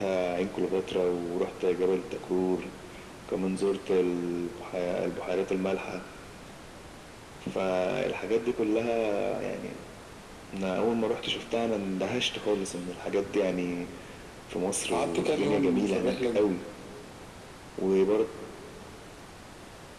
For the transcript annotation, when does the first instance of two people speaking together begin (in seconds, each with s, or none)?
14.9 s